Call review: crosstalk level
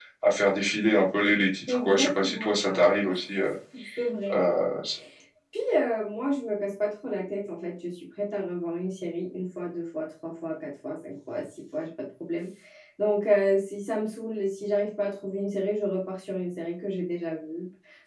present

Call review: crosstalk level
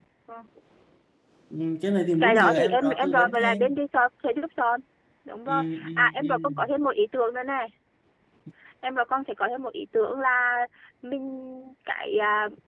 present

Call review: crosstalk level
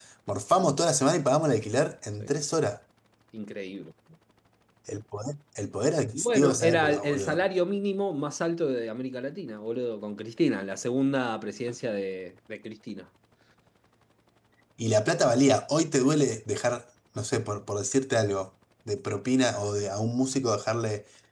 present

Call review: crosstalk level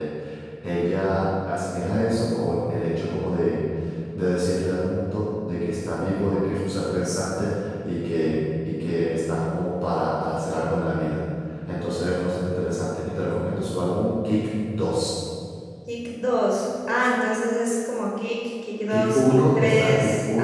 present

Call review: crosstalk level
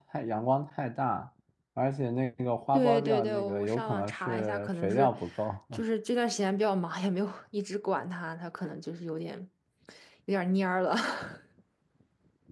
present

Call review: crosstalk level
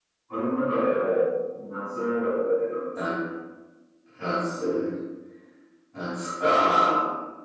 none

